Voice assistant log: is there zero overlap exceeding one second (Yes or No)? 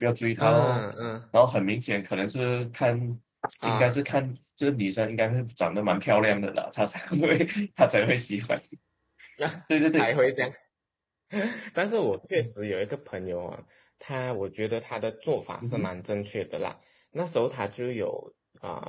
Yes